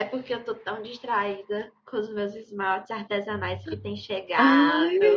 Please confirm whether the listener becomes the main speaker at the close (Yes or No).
Yes